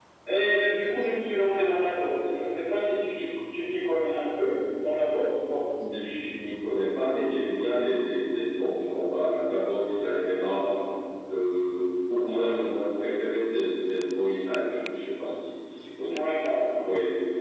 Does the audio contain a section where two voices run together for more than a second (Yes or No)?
No